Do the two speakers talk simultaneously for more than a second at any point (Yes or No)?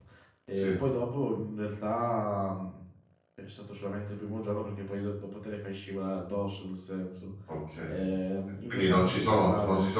Yes